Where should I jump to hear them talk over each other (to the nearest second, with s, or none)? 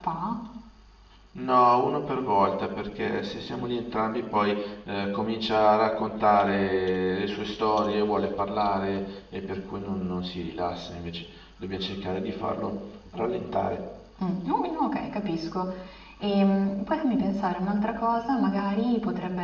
none